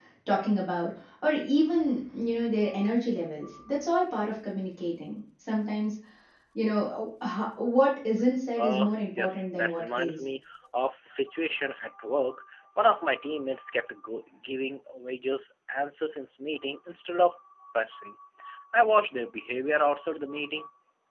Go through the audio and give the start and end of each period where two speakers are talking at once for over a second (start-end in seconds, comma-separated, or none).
8.6-10.2